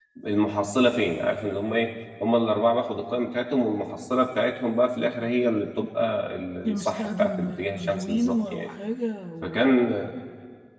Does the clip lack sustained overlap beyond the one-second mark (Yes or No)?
No